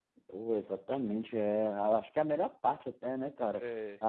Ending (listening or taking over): listening